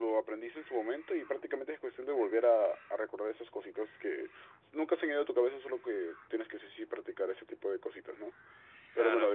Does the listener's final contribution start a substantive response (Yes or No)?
No